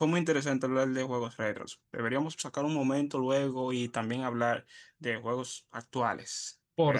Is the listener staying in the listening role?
No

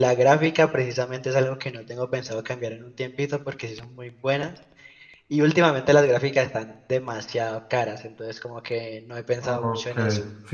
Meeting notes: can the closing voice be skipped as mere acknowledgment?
No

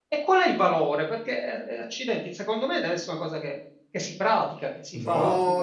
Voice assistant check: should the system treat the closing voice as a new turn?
Yes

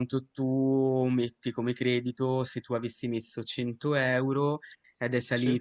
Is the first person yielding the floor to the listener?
No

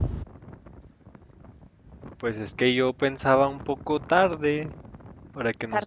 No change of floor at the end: Yes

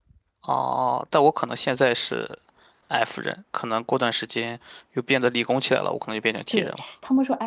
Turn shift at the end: Yes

